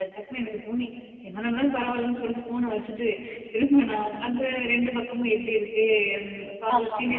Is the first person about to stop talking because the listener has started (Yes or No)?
No